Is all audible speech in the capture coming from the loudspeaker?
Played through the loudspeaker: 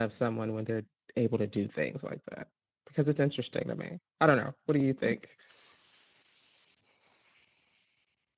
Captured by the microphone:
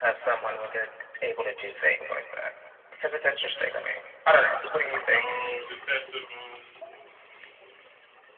No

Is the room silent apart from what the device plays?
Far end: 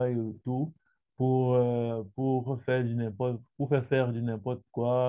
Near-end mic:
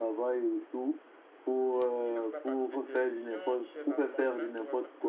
No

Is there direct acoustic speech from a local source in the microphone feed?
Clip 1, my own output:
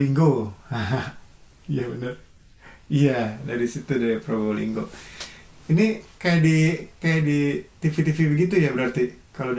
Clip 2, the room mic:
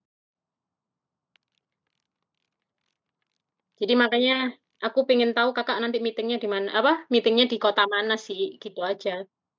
Yes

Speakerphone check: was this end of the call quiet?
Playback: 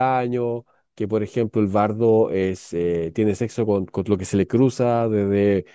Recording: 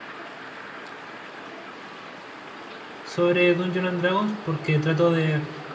No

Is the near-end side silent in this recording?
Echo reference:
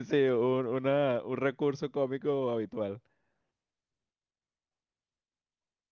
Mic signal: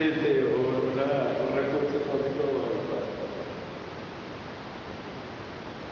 Yes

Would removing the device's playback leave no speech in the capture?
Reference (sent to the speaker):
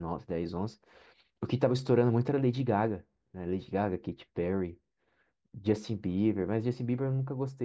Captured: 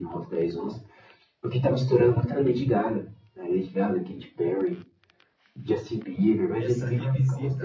No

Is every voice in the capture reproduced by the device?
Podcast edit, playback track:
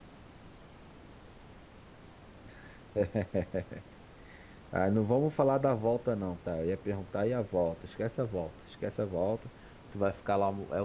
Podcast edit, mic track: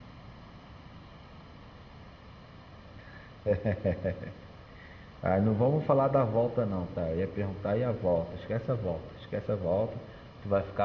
Yes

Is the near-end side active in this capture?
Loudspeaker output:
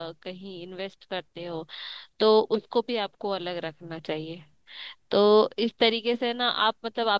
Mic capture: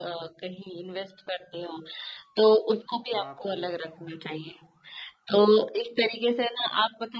Yes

